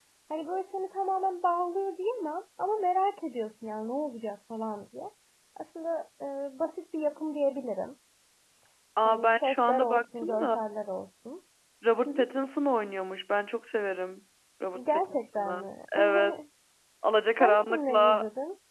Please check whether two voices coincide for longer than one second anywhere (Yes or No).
Yes